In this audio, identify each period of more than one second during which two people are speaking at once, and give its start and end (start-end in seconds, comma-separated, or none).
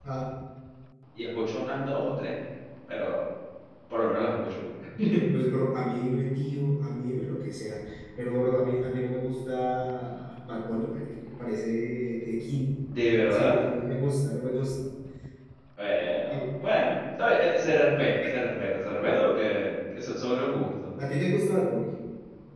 none